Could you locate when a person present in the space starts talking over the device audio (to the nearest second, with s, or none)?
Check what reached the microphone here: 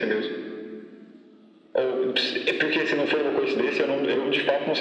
none